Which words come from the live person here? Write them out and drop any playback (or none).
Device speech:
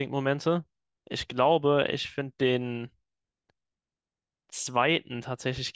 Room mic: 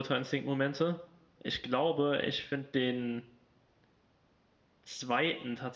none